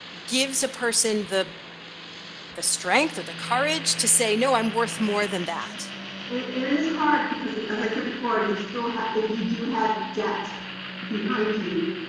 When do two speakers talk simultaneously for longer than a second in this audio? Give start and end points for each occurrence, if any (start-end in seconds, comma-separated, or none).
none